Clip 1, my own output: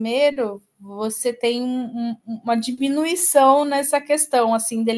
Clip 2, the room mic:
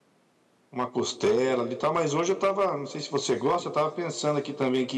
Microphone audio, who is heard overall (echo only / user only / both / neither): user only